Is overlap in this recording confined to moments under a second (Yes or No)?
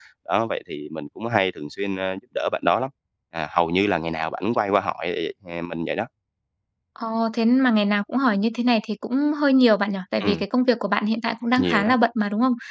Yes